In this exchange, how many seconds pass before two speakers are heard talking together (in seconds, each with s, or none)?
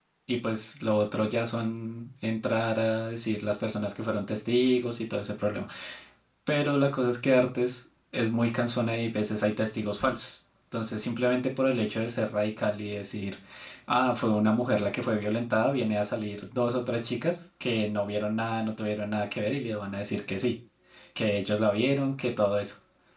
none